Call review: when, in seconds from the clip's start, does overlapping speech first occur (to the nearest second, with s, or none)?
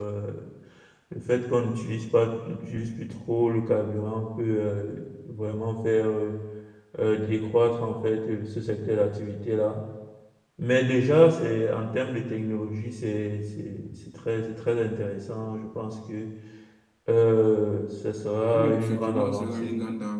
19 s